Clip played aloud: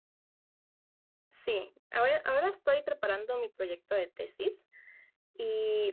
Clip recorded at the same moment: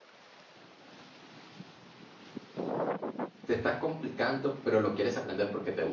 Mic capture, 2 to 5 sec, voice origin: user only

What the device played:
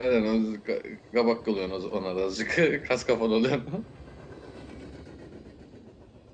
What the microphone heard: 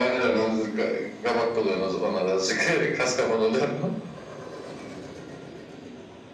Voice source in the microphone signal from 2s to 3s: echo only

